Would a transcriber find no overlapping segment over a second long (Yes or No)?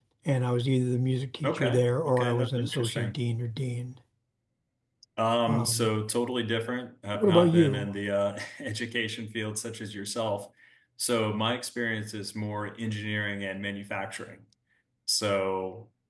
No